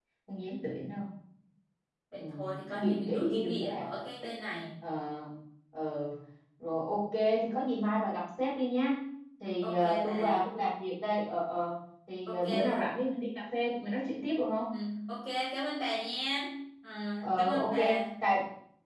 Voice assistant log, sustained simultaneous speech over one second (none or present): present